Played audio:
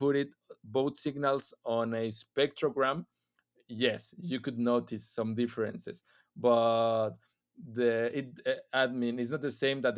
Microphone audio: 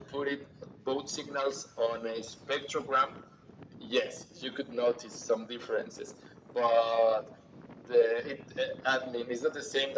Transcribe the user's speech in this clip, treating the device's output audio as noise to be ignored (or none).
none